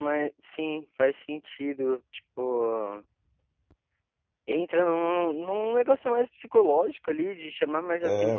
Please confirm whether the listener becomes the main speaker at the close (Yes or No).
No